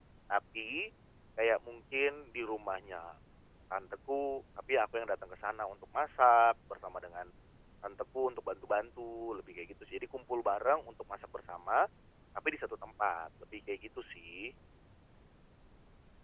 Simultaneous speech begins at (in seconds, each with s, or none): none